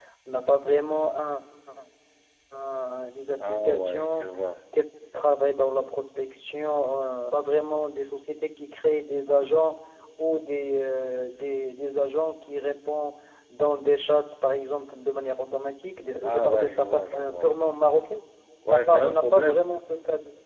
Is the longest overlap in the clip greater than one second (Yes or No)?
Yes